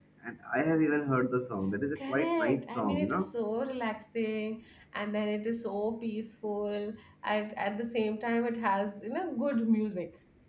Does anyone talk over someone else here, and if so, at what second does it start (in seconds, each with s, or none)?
2.0 s